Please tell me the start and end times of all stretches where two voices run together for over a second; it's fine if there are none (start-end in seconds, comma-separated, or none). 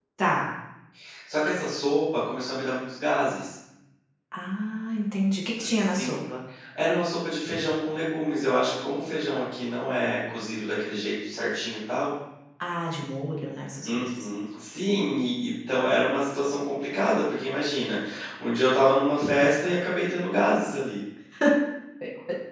none